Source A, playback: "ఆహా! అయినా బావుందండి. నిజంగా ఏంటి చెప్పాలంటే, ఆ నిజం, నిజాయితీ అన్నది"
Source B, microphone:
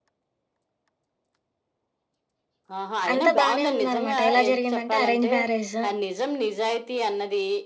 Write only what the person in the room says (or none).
అంతా బానే ఉందనమాట. ఎలా జరిగిందంటే అరేంజ్ మ్యారేజ్.